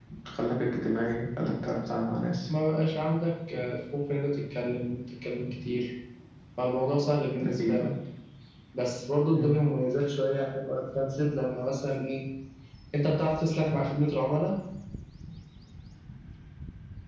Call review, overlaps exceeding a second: none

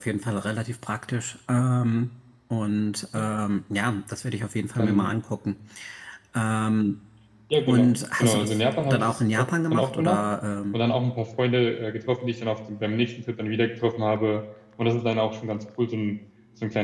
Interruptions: present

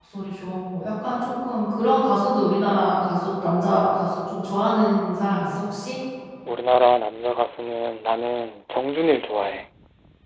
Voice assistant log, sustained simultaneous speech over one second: none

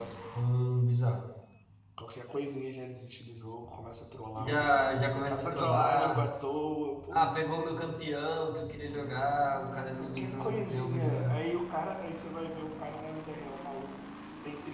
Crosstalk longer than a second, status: present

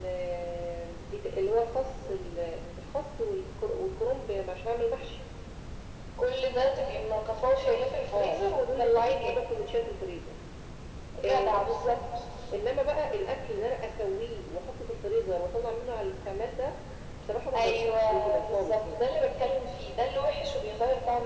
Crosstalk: present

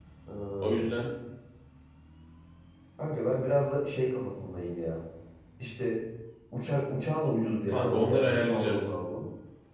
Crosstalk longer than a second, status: present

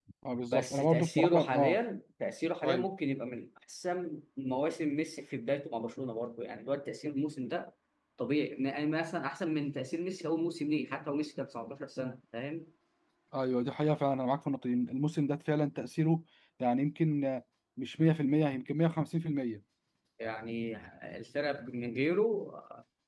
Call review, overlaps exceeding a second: present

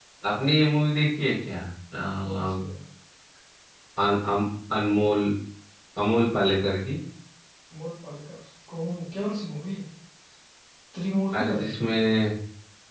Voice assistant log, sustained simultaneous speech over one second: none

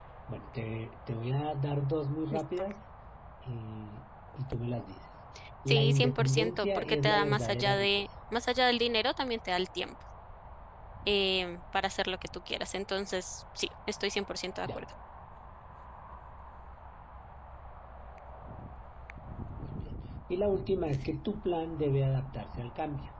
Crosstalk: present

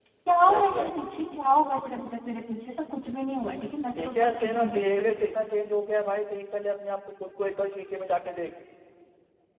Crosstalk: present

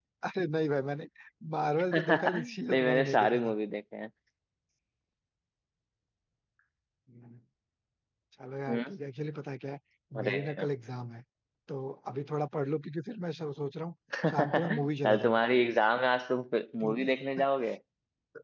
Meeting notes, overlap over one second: present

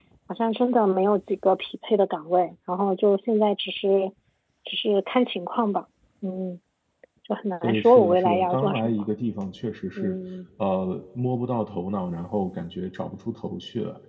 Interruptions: present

